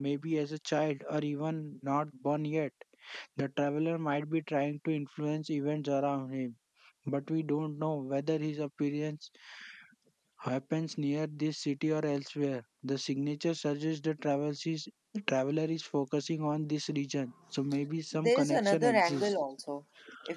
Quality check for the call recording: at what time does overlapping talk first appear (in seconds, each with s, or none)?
18.1 s